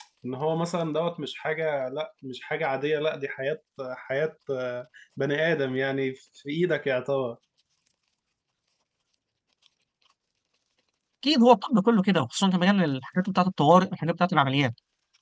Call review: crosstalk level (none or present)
none